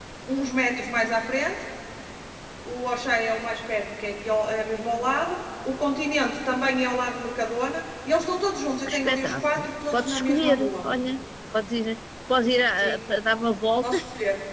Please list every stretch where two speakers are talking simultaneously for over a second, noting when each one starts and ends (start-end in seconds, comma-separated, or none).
8.9-10.9